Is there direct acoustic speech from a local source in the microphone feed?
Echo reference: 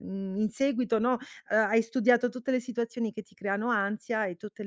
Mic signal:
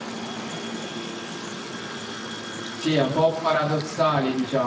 Yes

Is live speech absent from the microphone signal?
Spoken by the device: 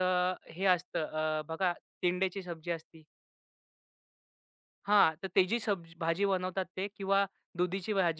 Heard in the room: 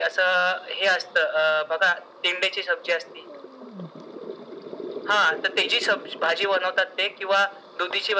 Yes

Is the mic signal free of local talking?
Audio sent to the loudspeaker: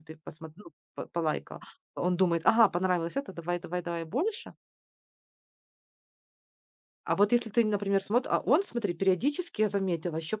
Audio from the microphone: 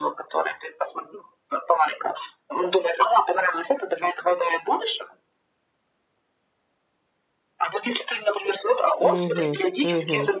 No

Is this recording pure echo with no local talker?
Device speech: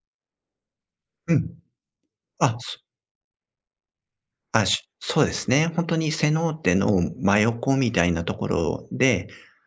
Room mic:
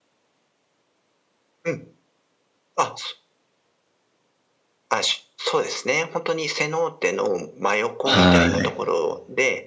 No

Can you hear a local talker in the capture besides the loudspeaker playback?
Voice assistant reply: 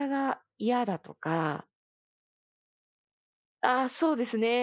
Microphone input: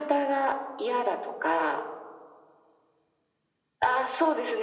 No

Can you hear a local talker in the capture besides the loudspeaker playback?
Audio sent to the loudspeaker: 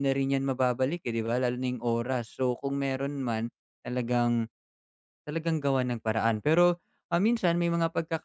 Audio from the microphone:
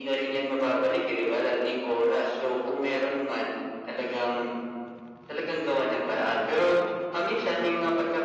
No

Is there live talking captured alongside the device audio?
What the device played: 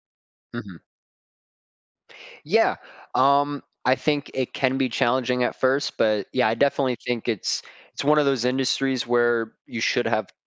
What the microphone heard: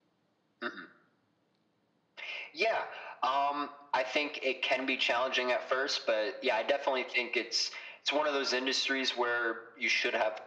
No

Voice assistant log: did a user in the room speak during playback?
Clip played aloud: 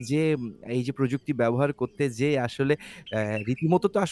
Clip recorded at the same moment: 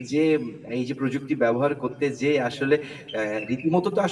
No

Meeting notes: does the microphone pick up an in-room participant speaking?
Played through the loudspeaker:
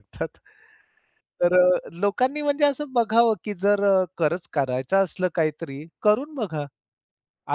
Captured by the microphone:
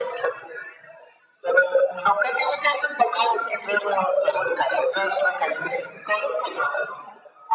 No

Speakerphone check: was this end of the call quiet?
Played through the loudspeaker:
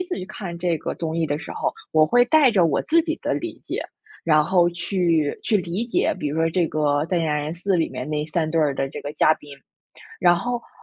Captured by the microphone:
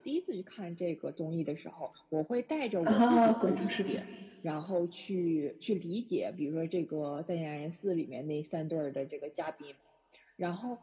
No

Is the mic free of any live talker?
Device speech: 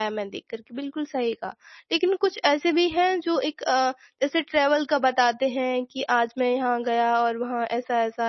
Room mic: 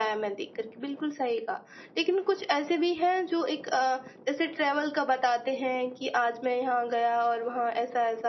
Yes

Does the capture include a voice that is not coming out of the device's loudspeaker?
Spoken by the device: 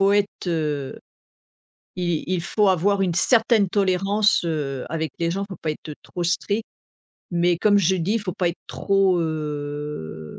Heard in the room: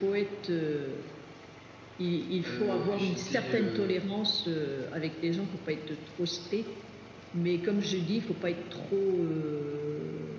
Yes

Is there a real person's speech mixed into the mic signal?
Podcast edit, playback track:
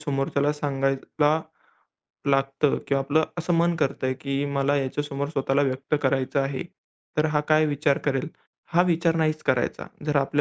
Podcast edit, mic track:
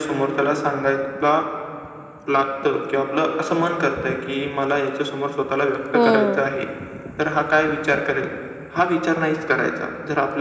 Yes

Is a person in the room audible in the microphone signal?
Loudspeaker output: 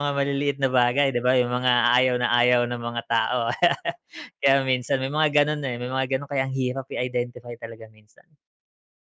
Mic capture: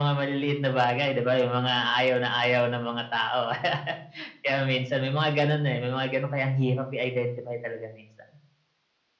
No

